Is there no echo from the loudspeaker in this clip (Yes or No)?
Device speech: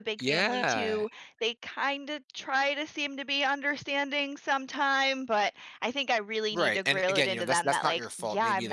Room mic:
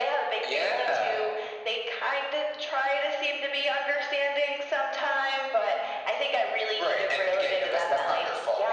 No